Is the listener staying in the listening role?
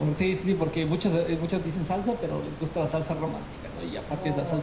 No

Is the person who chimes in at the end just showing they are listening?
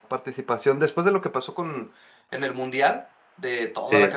Yes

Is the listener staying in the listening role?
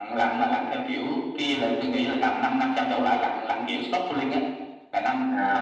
No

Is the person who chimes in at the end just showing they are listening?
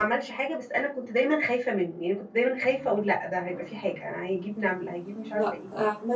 No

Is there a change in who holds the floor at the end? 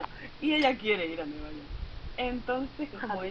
No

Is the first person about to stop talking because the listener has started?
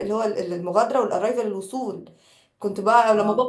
No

